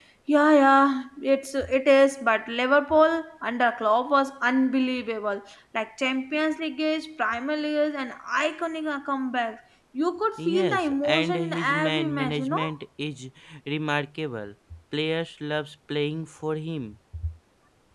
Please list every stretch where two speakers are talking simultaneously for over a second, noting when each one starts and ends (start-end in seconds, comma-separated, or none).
10.4-12.7